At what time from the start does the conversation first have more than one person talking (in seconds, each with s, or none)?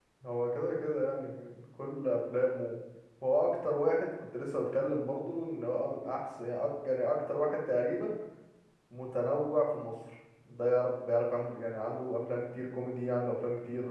none